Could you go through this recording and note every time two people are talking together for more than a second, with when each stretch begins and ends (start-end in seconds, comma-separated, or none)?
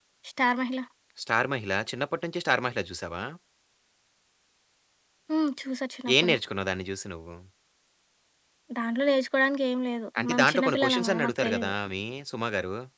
10.2-11.7